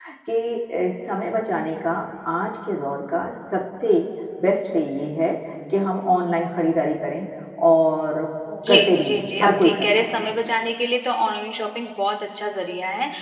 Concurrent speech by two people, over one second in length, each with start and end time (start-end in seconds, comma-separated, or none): 8.7-10.1